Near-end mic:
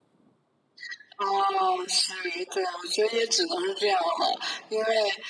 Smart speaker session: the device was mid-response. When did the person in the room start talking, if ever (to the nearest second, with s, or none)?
none